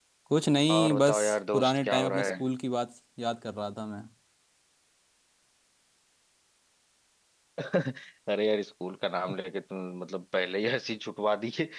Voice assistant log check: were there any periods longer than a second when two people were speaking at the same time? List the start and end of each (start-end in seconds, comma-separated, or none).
0.7-2.4